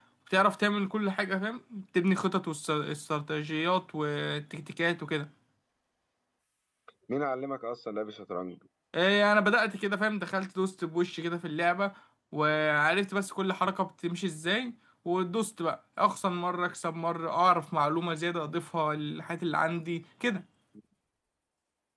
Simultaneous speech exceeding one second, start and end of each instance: none

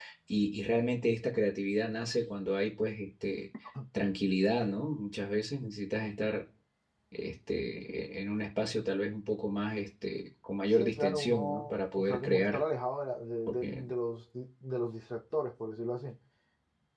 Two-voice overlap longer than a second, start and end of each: 10.7-12.6

